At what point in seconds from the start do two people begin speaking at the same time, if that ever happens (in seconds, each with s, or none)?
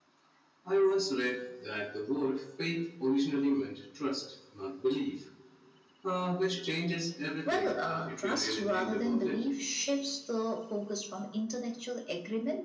7.4 s